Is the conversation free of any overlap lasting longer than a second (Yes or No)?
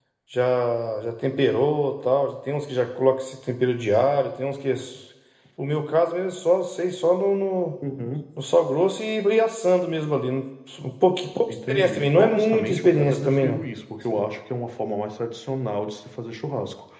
No